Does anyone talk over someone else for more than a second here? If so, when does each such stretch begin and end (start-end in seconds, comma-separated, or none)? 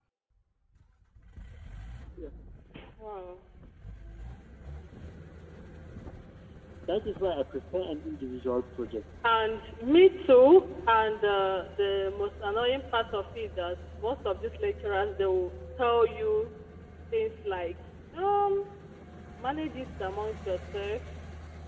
none